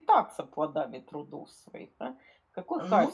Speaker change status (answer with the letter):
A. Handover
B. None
B